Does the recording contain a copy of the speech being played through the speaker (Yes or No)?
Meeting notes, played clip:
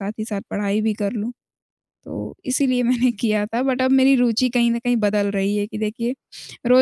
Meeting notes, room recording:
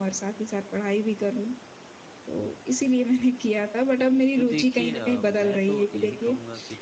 Yes